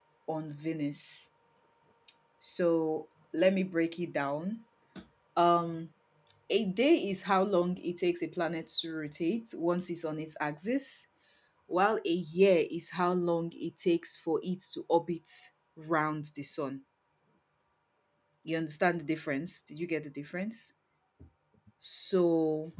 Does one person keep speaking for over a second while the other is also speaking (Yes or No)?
No